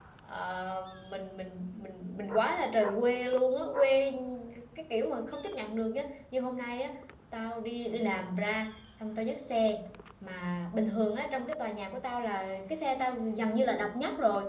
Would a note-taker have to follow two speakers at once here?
No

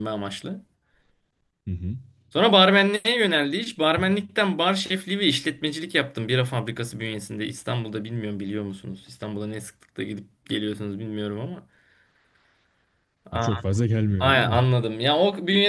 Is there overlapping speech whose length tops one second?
No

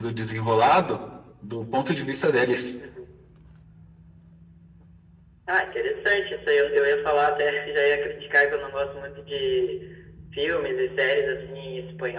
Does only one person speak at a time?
Yes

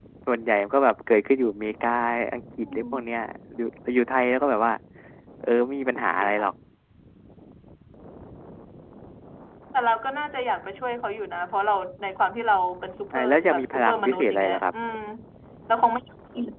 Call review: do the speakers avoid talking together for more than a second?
No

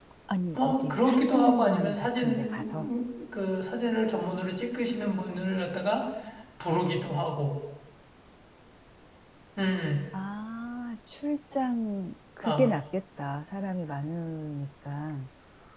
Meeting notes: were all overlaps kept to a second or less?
No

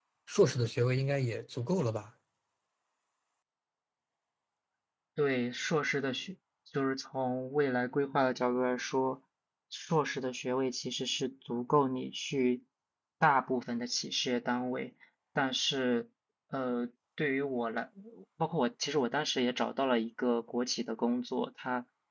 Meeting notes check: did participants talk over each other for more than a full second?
No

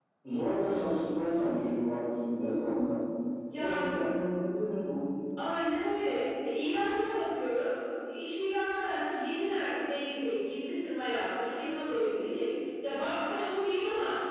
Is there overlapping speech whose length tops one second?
No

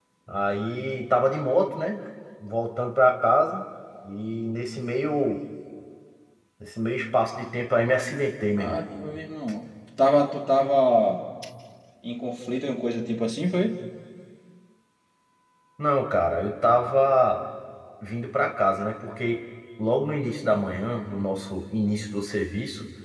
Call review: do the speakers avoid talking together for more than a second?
Yes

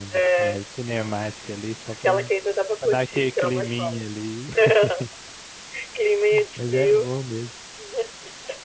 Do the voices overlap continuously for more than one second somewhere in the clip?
Yes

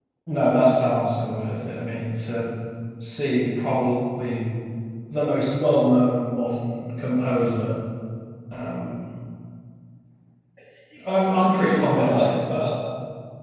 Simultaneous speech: Yes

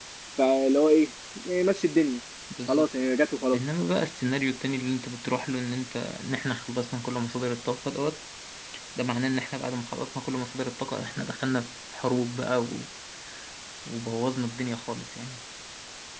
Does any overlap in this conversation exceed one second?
No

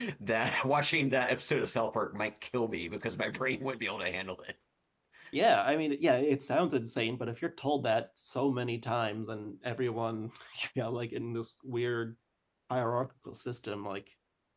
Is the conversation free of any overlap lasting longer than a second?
Yes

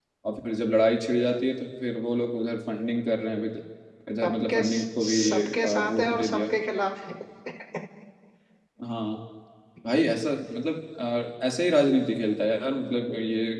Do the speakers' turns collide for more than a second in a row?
Yes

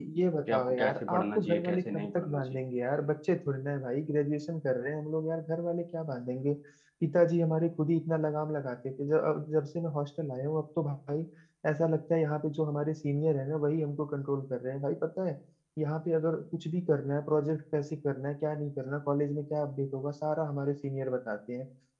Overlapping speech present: Yes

